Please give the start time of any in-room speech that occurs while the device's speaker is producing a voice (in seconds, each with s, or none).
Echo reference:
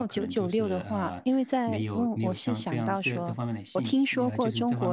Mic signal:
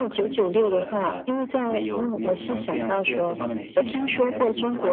2.4 s